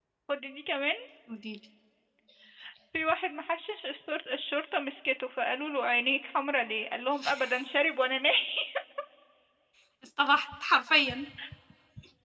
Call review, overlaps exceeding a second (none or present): none